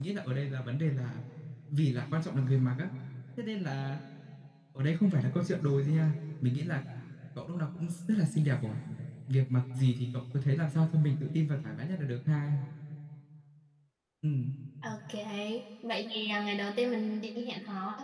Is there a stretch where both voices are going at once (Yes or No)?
No